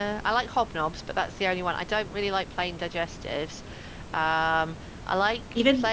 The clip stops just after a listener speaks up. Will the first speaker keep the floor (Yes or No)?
Yes